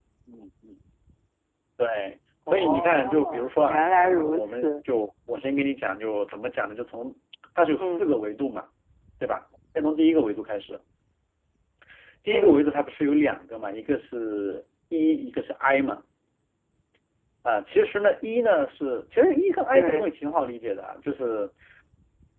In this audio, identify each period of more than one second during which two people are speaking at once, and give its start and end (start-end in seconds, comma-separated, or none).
2.5-4.7